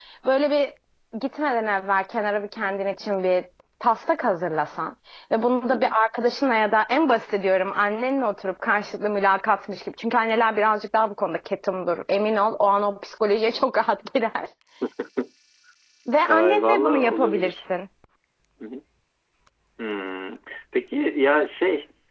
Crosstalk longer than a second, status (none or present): present